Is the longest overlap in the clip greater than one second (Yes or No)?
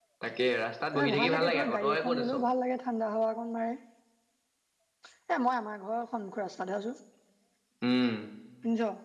Yes